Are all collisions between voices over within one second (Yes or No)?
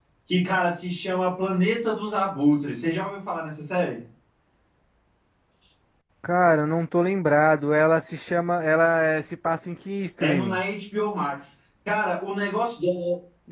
Yes